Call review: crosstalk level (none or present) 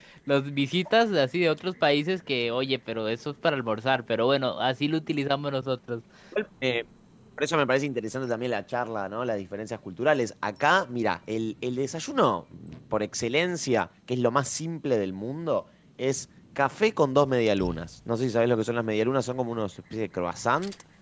none